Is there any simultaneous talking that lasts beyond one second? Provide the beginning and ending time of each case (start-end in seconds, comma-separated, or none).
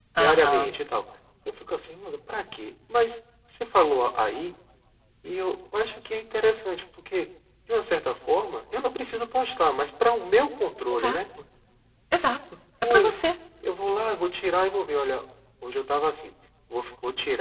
none